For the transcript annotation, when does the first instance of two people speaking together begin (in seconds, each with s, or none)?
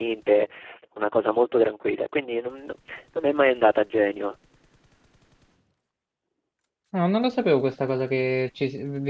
none